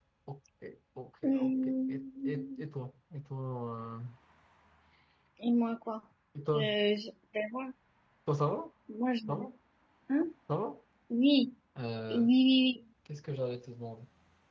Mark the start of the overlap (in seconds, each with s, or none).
1.2 s